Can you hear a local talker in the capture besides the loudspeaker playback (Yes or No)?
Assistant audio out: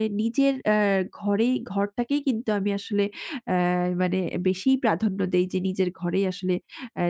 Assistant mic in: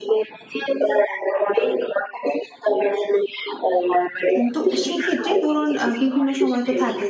Yes